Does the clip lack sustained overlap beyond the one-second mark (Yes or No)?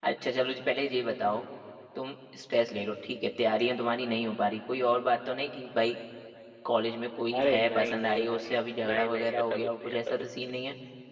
No